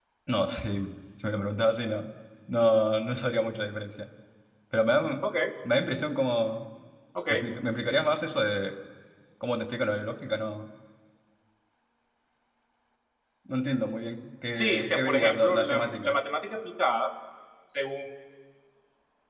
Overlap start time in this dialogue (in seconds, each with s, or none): 14.5 s